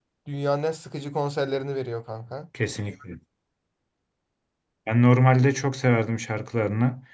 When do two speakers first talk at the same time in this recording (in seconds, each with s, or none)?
none